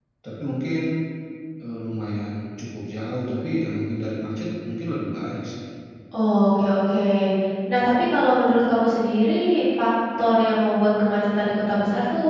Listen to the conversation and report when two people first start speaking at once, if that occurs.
none

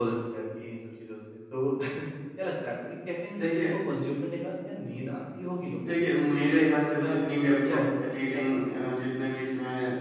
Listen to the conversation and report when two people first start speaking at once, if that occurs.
5.8 s

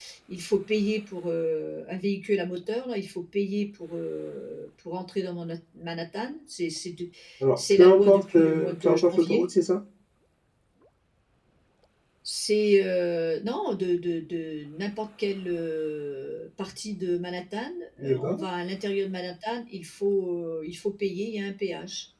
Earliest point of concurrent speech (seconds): 7.6 s

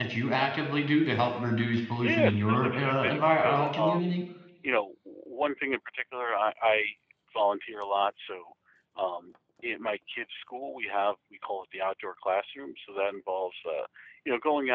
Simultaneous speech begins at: 2.0 s

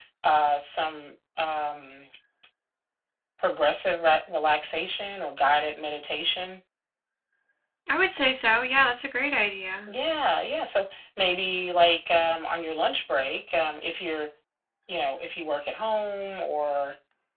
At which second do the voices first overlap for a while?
none

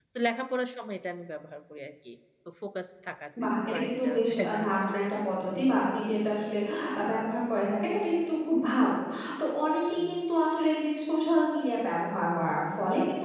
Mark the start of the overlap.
3.4 s

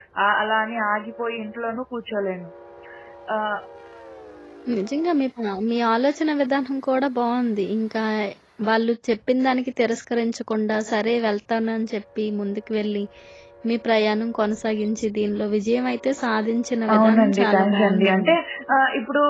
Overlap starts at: 16.9 s

